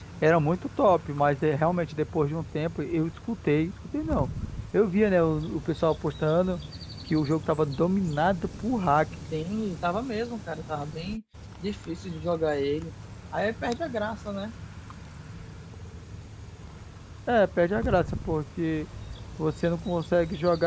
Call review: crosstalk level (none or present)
none